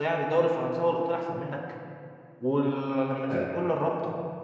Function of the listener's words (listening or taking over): listening